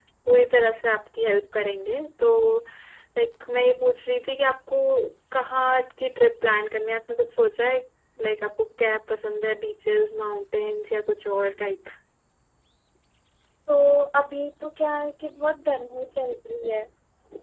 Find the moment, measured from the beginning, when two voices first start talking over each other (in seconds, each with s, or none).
none